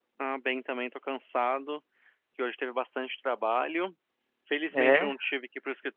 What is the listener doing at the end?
listening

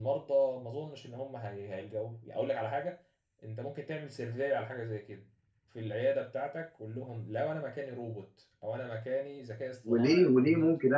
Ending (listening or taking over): taking over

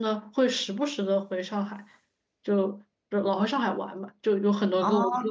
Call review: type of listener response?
listening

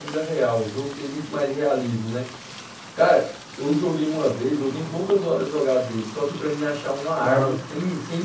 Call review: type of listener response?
listening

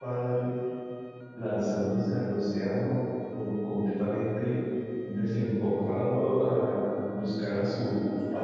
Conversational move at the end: taking over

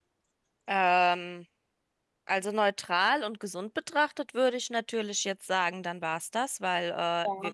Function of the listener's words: listening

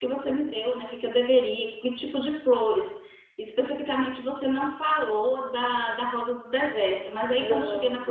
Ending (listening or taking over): listening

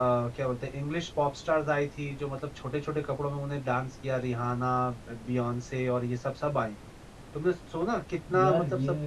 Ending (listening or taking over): listening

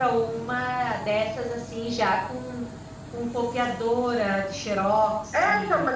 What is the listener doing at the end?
taking over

